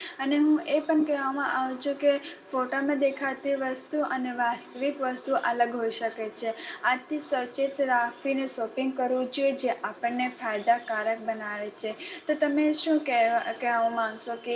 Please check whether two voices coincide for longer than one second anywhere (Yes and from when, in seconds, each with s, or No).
No